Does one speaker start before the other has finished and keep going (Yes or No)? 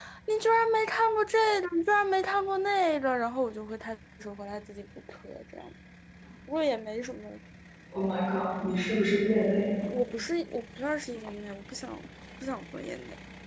No